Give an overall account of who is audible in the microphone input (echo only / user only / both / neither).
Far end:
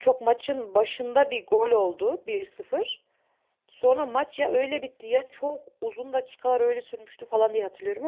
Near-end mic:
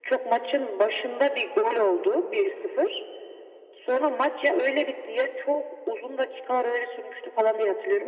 echo only